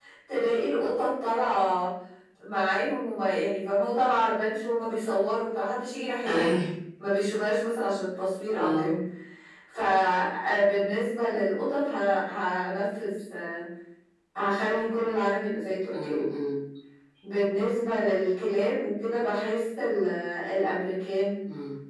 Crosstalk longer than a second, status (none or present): none